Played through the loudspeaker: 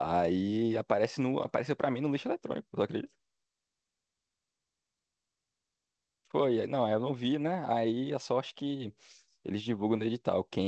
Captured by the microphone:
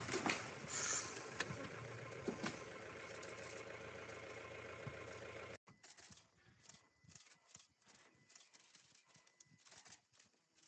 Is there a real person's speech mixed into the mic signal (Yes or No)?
No